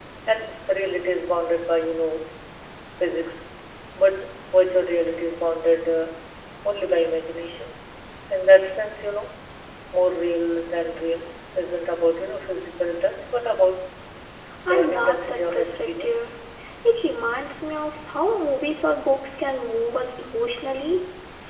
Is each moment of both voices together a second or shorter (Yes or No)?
No